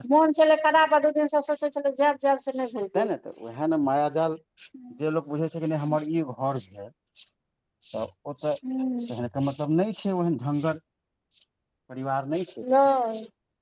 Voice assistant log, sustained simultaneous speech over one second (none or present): none